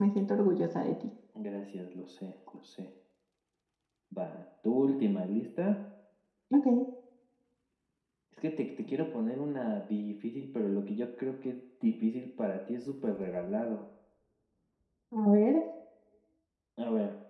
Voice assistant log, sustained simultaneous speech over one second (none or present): none